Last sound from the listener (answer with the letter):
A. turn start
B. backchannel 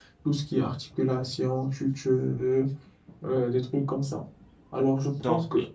B